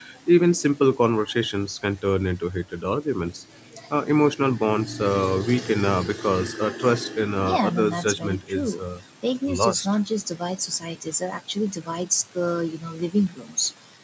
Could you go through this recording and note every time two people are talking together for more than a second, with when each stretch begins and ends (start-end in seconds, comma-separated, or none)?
7.4-8.8